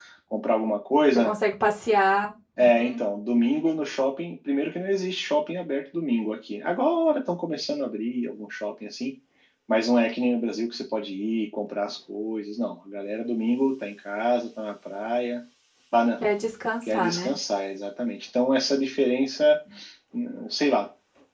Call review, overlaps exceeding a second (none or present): none